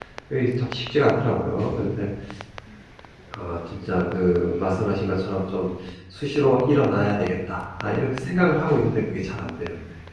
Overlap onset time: none

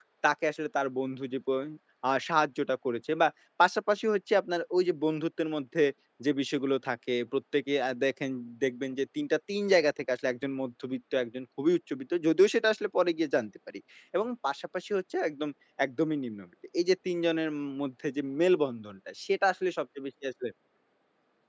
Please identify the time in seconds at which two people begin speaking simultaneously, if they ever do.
none

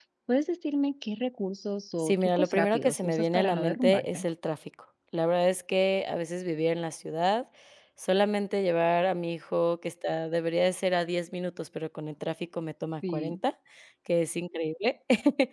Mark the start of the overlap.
2.0 s

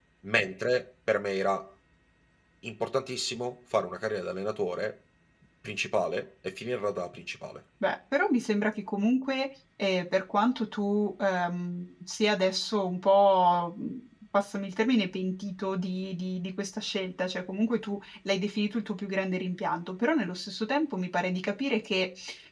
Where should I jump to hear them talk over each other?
none

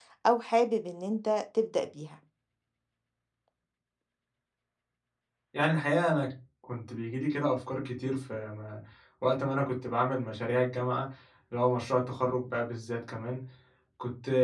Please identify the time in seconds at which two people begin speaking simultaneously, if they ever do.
none

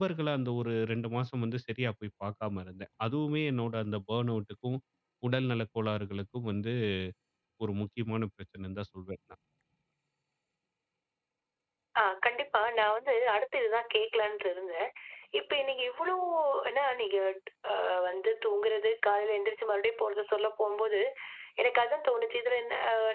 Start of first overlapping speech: none

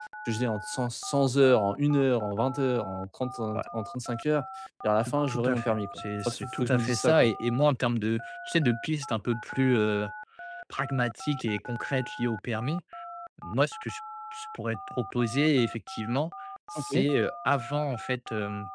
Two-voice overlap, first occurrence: 5.0 s

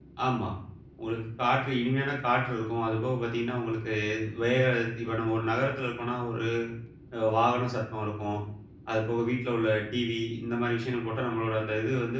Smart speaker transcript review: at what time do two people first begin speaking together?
none

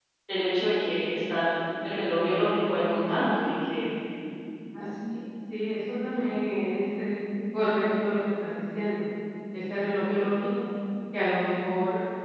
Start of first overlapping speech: none

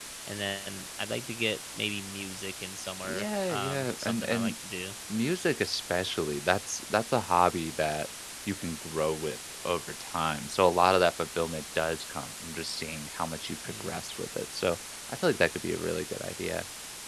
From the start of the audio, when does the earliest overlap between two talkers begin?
3.0 s

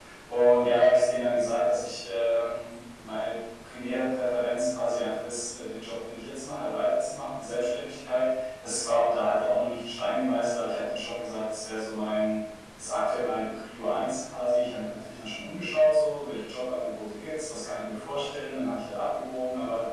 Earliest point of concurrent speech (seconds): none

